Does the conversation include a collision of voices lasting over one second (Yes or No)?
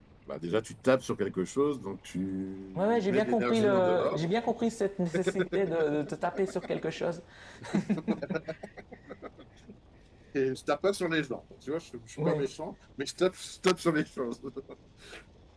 Yes